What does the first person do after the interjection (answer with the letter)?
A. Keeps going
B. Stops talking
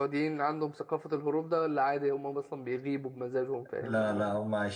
B